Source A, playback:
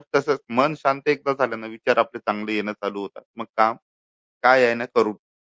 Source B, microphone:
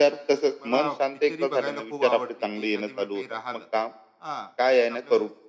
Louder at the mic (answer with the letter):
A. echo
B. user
A